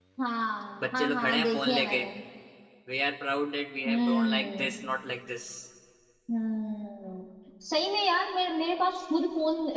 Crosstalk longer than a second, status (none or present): present